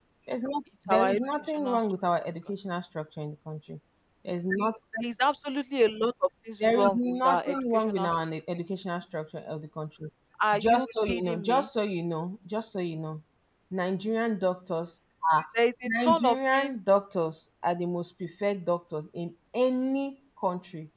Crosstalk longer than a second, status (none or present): present